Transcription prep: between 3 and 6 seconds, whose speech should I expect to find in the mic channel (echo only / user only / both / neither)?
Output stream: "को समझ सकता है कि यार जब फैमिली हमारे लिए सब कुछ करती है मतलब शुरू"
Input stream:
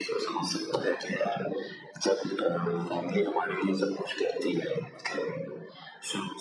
echo only